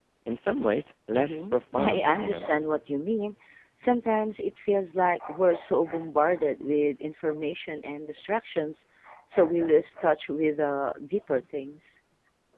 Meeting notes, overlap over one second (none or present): present